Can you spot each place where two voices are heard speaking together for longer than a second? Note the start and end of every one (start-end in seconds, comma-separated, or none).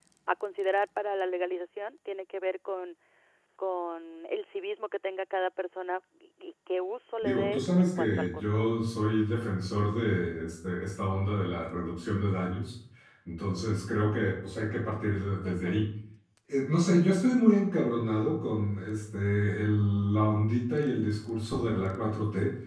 7.2-8.8